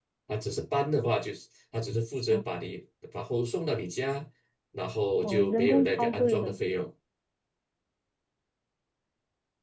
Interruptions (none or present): present